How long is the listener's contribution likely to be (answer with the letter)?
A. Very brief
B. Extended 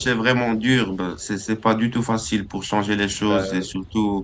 A